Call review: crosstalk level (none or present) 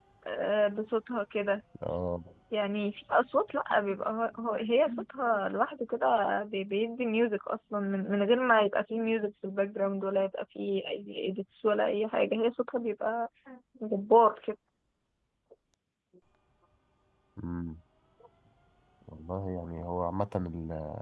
none